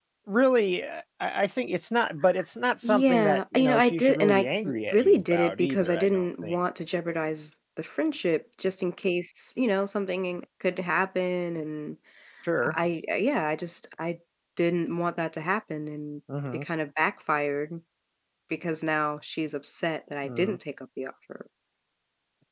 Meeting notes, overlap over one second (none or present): present